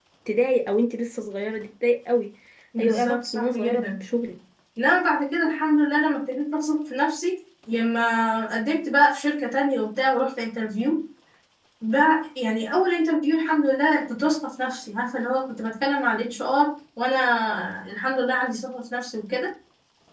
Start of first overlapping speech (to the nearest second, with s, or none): 3 s